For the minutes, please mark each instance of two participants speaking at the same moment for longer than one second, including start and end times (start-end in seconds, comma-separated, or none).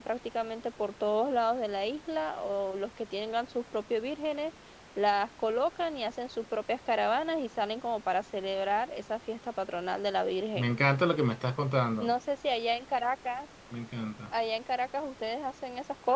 none